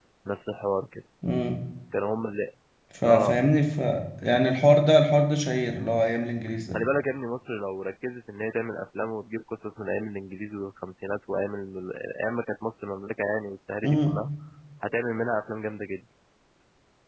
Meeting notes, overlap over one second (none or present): none